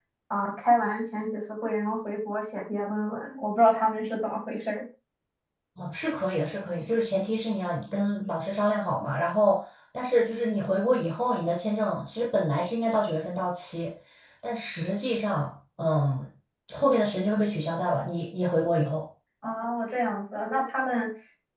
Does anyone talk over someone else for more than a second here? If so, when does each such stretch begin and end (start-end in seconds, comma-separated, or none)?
none